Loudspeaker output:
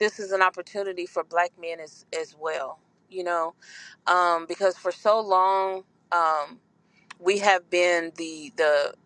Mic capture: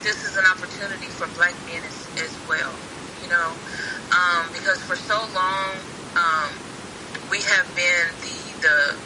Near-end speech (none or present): none